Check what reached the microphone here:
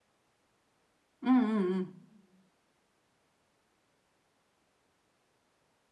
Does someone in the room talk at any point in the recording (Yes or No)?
Yes